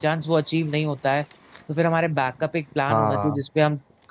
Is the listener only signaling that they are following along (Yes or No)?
Yes